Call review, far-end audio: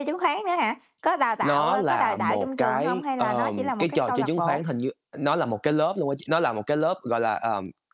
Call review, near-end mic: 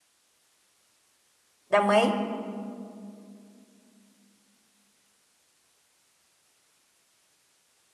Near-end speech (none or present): present